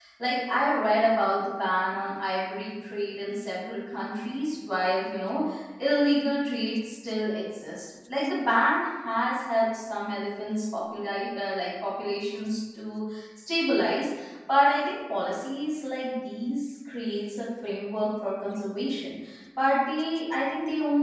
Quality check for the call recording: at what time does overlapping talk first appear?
none

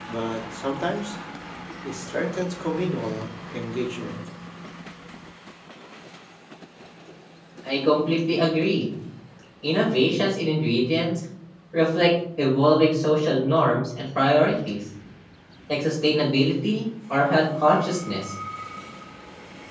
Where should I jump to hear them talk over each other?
none

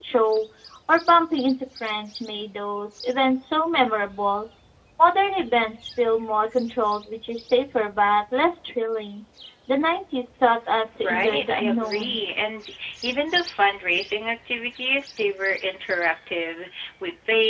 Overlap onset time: 11 s

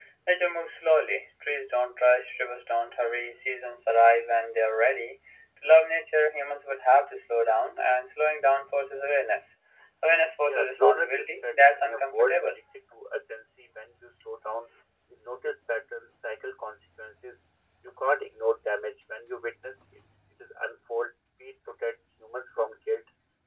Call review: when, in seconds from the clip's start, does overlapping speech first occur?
10 s

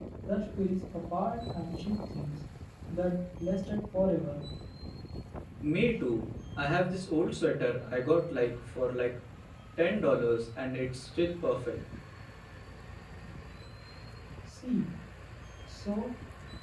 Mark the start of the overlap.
none

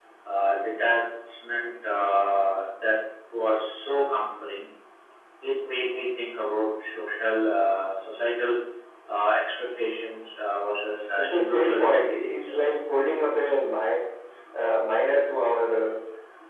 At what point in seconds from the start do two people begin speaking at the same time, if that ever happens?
11 s

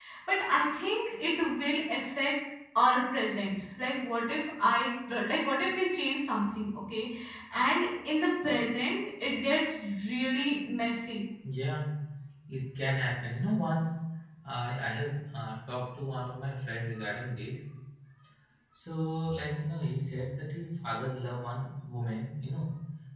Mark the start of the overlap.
none

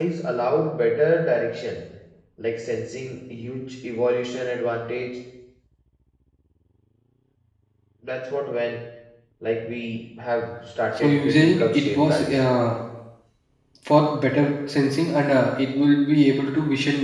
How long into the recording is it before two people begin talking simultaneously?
11 s

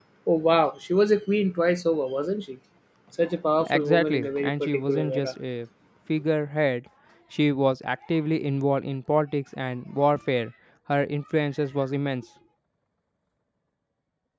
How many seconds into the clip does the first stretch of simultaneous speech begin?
4 s

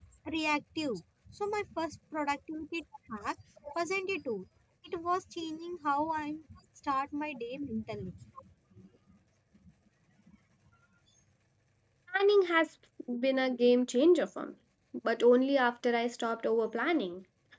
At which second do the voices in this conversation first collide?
none

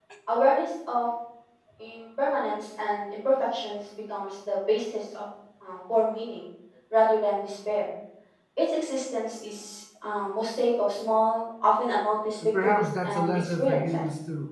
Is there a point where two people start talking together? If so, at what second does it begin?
12 s

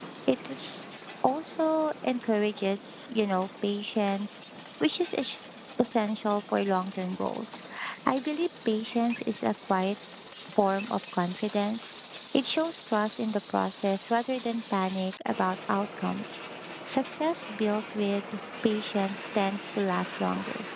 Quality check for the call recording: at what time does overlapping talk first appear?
none

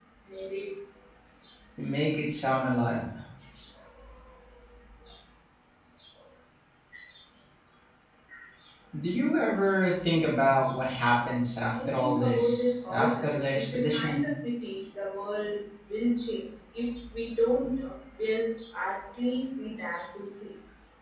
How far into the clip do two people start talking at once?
12 s

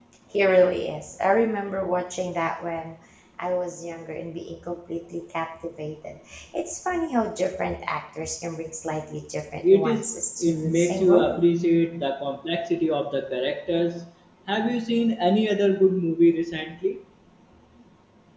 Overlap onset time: 10 s

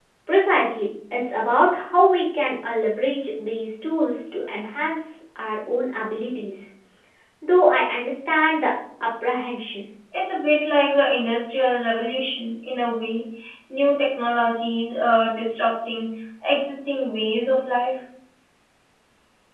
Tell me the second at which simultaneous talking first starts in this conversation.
none

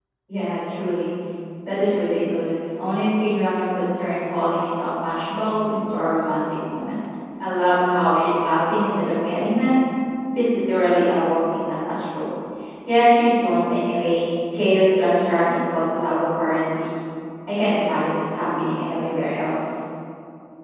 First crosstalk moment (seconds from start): none

